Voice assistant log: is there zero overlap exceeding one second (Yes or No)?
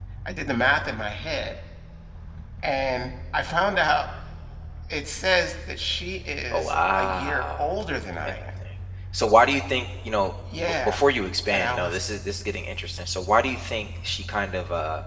No